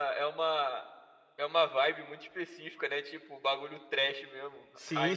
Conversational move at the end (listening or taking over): taking over